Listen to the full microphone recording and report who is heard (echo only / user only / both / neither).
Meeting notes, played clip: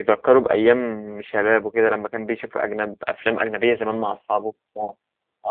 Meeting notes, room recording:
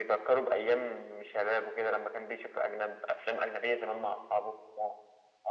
echo only